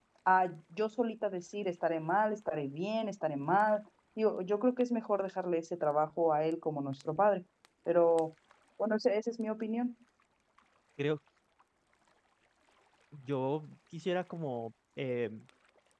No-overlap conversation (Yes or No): Yes